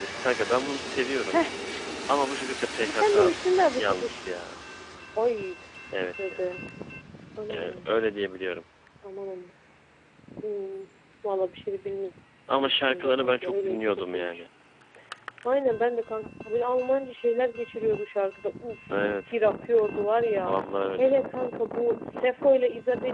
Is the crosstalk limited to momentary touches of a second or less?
No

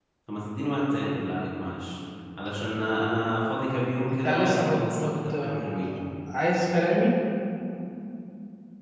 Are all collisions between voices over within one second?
No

